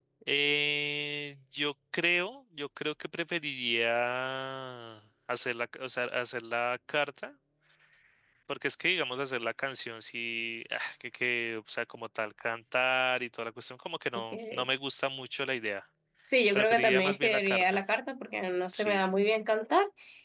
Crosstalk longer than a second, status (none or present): present